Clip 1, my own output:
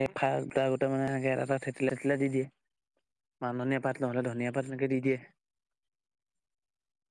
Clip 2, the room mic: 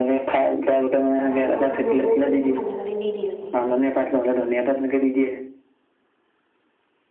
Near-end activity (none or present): present